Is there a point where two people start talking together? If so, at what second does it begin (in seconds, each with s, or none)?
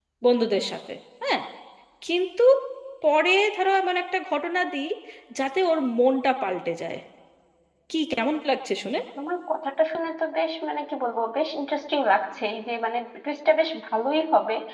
none